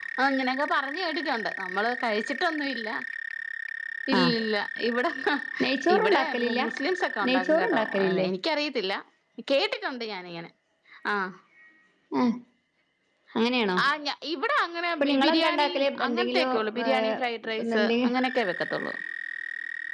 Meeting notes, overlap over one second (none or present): present